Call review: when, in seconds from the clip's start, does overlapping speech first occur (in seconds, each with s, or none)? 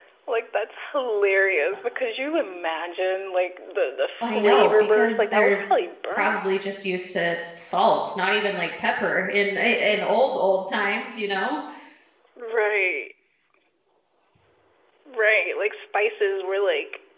4.2 s